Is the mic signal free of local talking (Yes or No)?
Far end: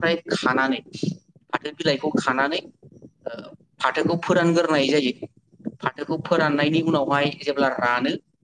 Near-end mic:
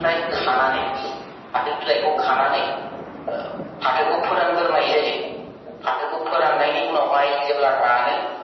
Yes